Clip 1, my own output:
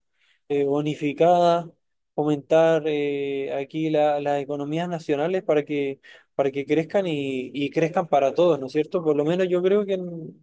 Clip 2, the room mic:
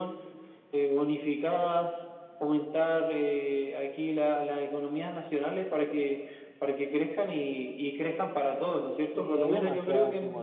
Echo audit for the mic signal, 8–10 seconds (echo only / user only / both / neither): both